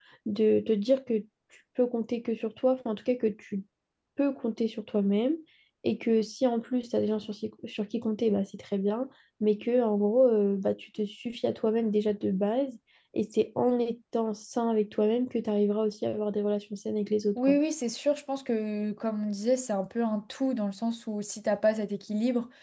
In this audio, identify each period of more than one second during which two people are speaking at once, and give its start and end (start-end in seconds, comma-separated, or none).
none